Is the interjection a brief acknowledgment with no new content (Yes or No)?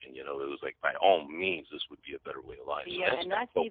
No